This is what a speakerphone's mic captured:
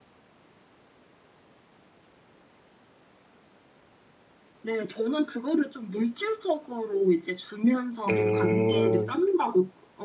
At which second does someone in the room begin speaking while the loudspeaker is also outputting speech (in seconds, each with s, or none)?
8.1 s